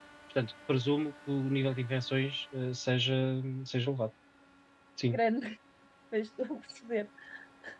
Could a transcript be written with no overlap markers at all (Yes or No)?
Yes